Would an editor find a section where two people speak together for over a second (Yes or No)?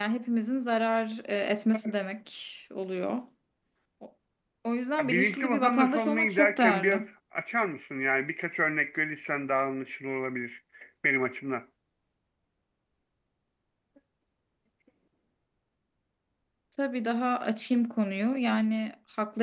Yes